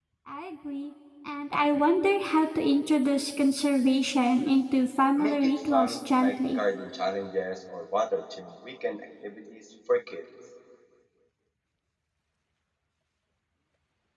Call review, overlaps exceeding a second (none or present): present